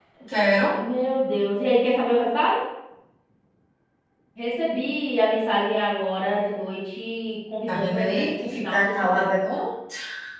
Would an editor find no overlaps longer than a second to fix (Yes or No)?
No